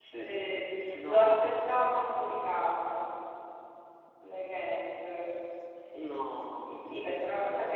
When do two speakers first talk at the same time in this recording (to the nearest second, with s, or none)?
1 s